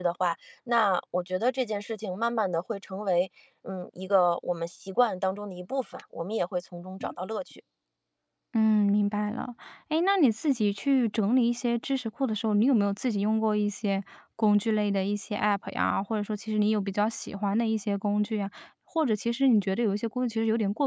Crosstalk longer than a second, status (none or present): none